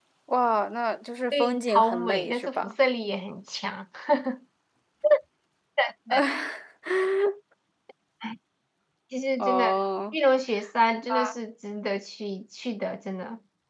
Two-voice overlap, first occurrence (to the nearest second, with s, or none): 1 s